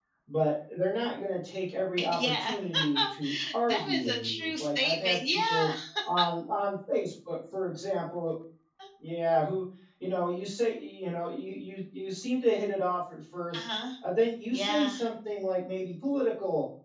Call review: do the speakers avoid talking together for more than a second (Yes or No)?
No